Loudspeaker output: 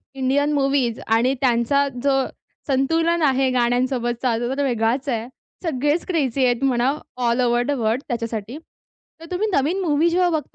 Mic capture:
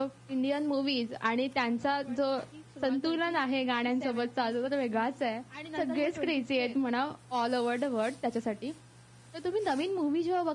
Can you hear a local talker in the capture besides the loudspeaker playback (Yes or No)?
Yes